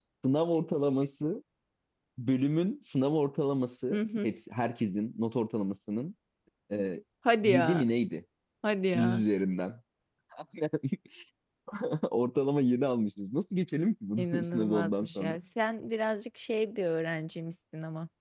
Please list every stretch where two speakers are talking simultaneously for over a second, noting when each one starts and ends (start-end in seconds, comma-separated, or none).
14.2-15.4